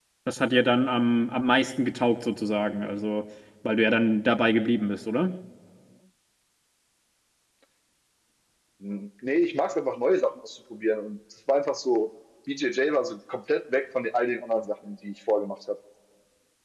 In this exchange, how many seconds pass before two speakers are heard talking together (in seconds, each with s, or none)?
none